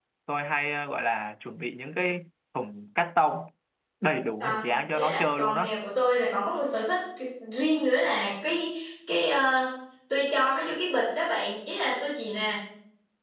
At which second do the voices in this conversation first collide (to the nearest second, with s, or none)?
4 s